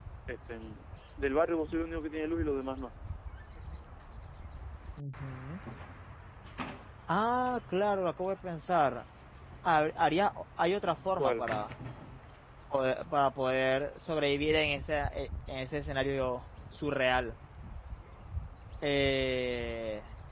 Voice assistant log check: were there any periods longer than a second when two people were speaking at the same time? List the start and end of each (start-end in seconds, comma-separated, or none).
none